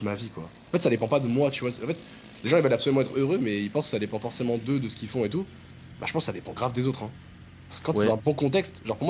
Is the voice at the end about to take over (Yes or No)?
No